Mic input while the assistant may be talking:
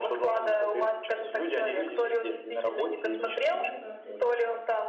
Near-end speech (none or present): present